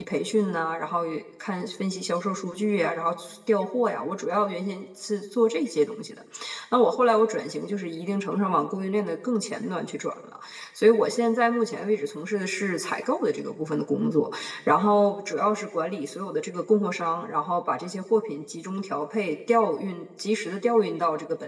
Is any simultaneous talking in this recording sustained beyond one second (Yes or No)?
No